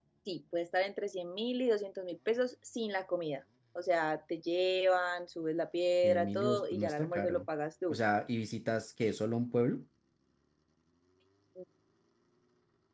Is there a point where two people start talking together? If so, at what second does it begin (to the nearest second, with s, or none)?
6 s